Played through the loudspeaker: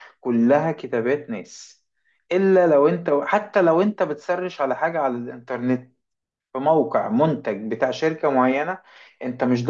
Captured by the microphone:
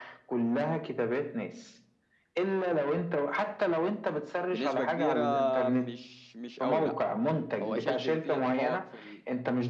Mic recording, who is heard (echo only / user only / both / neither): both